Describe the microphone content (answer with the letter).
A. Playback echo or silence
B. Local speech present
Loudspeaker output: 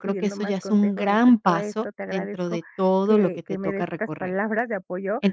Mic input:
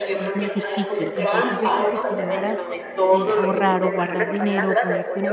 B